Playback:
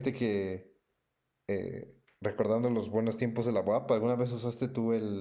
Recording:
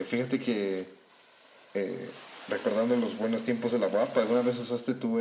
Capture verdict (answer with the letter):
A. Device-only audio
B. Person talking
A